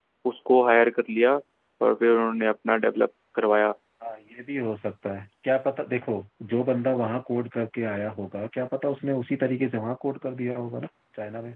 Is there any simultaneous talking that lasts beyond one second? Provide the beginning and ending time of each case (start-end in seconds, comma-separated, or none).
none